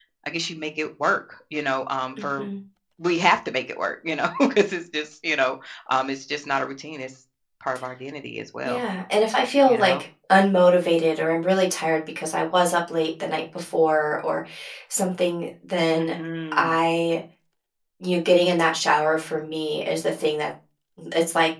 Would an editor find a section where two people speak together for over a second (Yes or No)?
No